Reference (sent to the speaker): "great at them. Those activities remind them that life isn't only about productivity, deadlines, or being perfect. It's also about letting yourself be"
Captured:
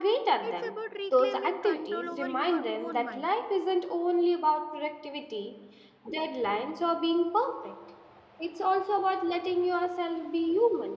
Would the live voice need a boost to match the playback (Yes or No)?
Yes